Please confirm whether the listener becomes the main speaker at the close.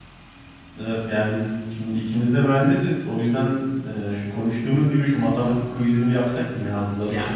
Yes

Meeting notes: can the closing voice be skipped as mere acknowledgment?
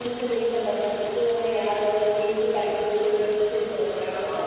No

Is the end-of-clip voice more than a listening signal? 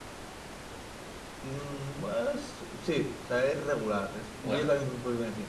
No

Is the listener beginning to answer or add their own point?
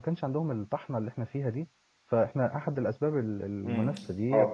Yes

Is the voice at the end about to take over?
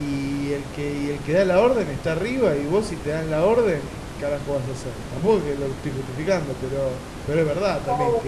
Yes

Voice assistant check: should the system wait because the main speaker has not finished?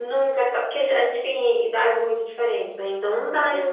Yes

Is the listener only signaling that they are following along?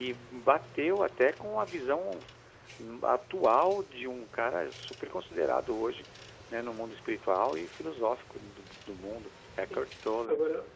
No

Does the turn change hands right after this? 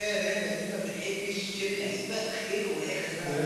No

